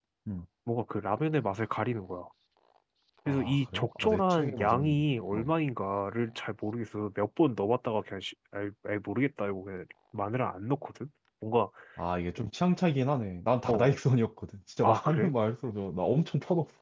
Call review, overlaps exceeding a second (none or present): present